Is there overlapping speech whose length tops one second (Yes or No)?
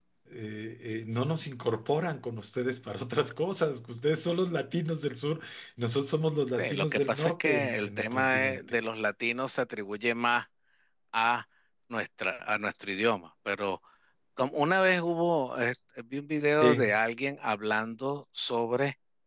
Yes